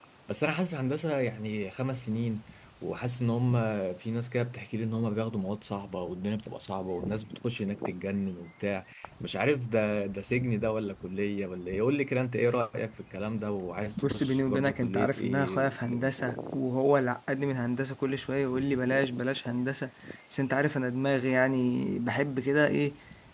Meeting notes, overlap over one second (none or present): present